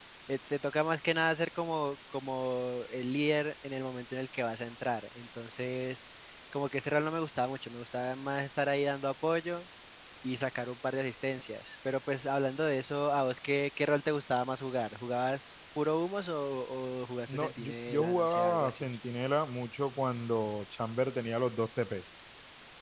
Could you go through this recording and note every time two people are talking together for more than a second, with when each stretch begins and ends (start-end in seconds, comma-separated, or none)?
17.3-18.9